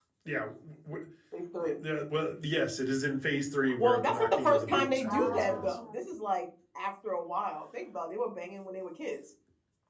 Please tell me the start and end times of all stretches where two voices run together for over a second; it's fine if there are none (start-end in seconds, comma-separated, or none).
3.8-5.8